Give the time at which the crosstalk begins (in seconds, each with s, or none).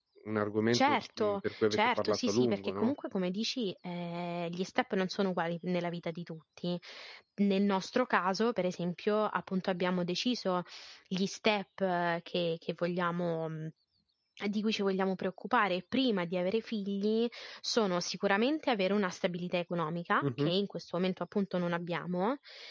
0.7 s